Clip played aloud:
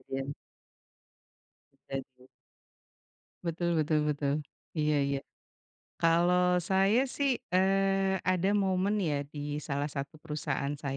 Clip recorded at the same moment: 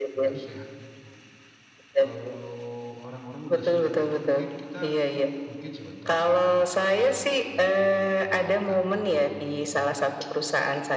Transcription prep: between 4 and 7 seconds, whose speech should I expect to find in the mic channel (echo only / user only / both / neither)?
both